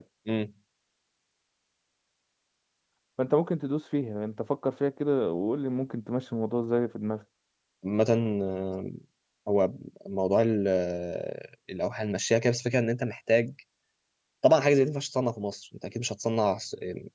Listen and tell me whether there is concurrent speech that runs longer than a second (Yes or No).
No